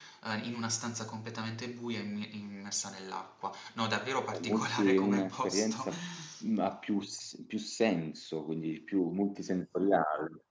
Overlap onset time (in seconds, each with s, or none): 4.3 s